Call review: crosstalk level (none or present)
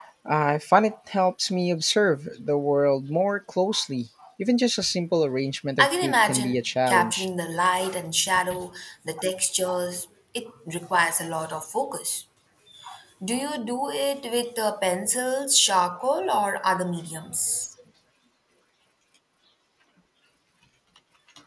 present